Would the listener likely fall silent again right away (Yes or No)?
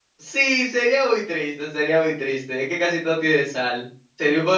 Yes